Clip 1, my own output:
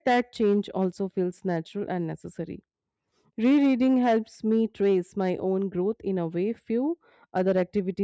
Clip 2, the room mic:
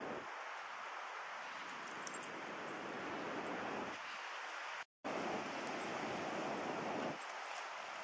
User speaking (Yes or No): No